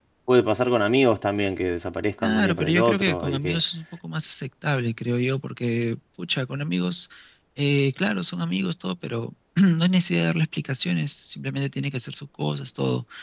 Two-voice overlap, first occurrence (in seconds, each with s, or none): 2.2 s